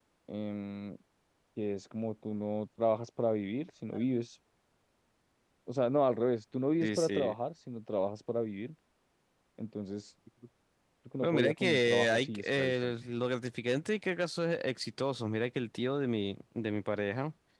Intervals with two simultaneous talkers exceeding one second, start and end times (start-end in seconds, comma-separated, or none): 11.2-12.9